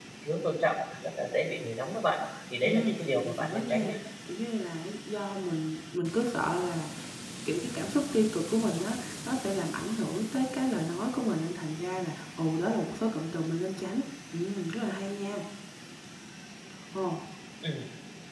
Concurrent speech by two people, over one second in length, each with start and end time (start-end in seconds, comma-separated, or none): 2.6-3.9